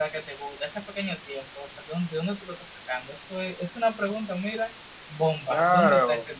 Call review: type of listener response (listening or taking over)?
taking over